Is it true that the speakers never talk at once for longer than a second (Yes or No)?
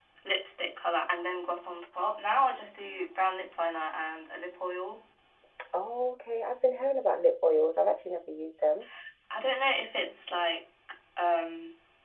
Yes